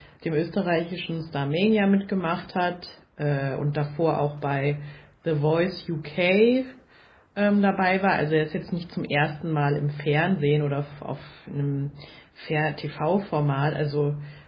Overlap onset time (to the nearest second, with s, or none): none